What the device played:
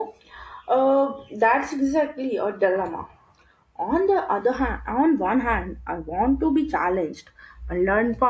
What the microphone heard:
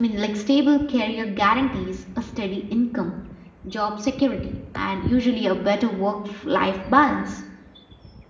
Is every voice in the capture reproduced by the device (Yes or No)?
No